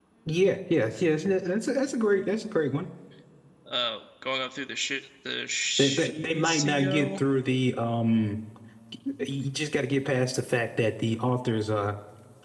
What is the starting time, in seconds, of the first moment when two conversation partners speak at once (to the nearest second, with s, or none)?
6 s